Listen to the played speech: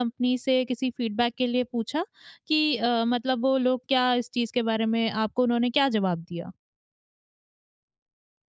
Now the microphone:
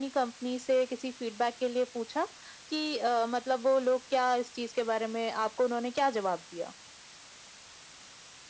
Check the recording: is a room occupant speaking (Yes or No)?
No